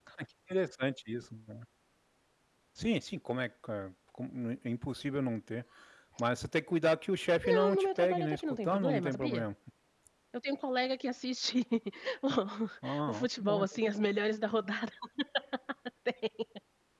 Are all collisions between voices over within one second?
No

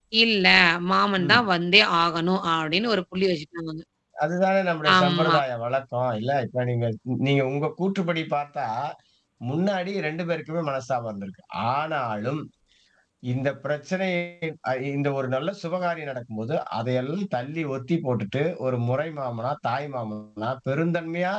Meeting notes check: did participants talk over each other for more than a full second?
No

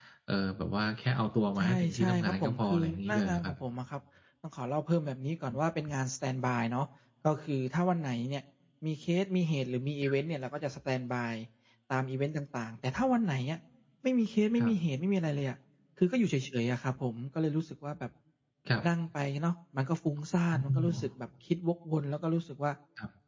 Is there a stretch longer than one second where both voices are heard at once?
Yes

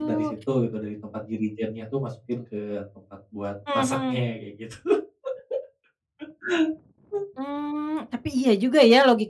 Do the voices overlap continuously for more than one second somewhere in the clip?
No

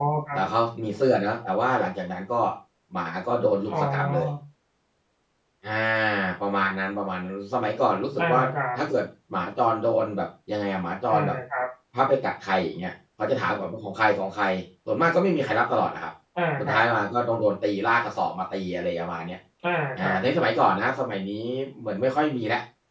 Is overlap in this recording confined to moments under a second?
Yes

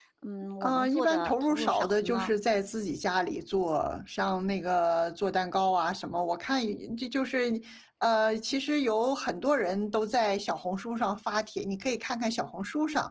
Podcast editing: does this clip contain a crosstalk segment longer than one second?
Yes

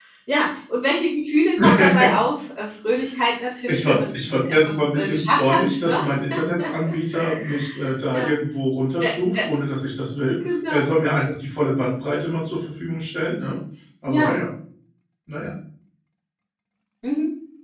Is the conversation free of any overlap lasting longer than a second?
No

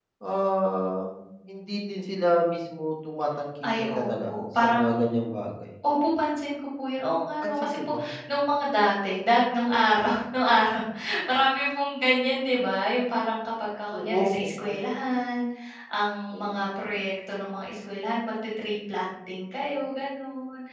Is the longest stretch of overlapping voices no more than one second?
No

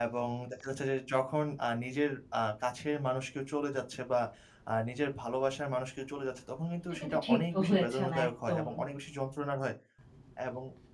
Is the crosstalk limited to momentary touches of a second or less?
No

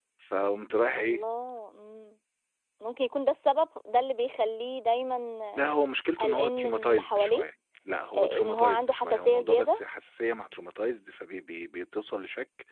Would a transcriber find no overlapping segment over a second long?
No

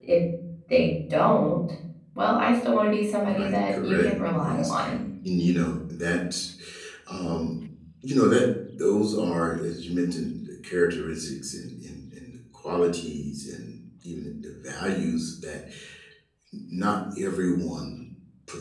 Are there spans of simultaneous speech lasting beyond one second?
Yes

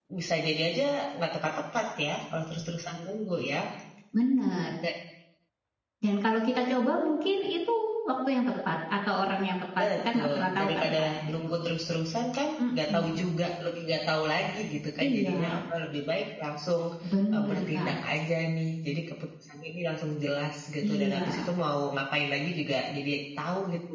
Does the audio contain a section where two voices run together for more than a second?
Yes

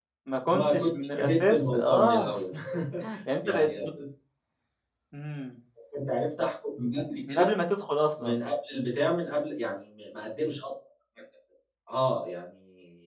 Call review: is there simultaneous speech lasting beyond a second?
Yes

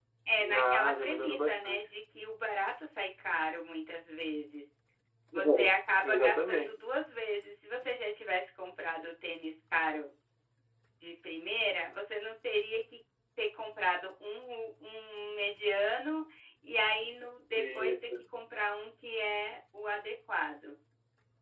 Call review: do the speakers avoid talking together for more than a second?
No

